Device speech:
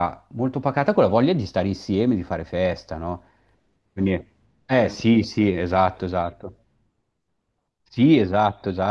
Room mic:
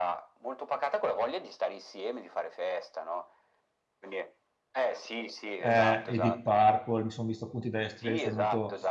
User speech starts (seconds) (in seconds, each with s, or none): 5.6 s